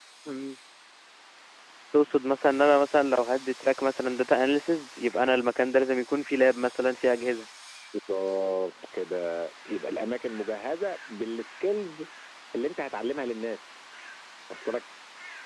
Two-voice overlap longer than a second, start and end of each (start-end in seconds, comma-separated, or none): none